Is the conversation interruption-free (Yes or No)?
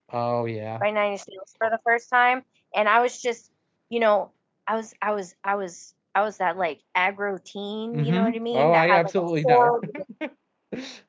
No